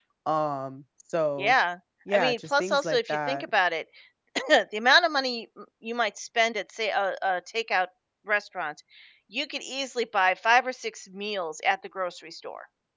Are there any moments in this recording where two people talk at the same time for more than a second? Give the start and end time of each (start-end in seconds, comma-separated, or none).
2.1-3.5